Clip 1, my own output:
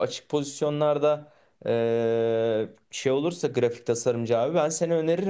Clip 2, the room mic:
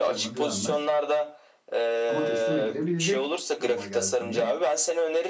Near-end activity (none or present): present